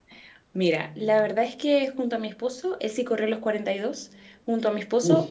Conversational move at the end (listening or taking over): listening